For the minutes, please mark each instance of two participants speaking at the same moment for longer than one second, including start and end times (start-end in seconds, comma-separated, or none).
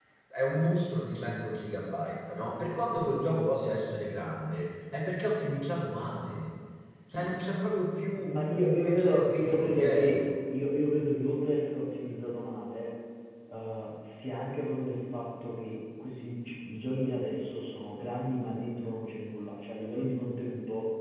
8.2-10.2